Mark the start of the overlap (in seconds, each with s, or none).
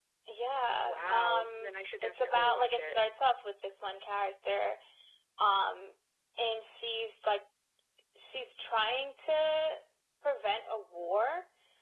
0.9 s